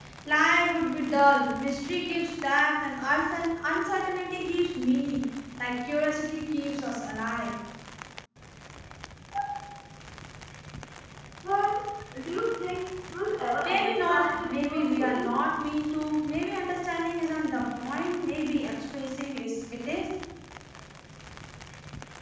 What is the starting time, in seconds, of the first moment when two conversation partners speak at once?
13.6 s

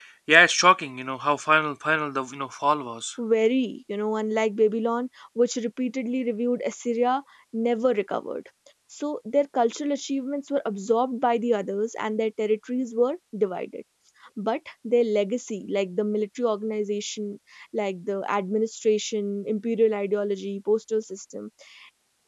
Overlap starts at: none

